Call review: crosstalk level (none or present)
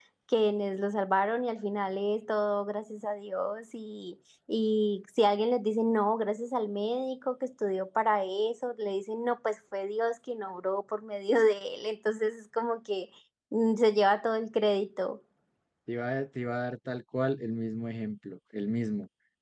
none